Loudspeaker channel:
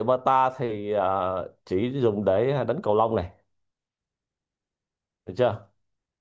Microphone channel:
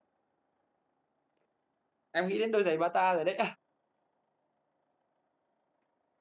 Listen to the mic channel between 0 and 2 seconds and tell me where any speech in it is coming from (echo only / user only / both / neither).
neither